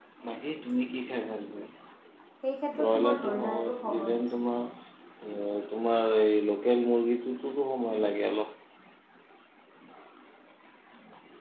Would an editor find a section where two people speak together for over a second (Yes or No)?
Yes